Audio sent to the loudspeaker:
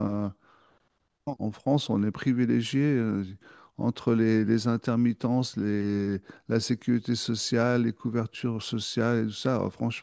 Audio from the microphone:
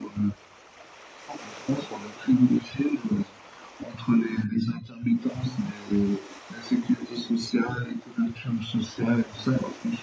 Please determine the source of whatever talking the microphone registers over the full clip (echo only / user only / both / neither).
echo only